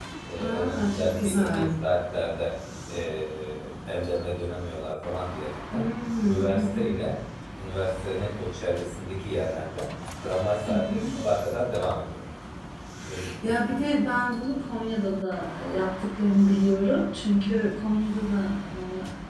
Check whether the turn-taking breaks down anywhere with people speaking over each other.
Yes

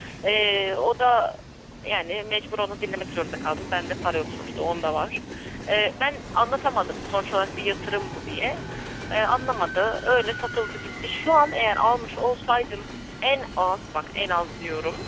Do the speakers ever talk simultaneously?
No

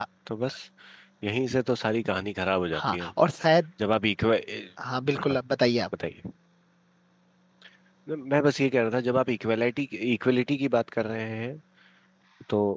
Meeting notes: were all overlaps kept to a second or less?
Yes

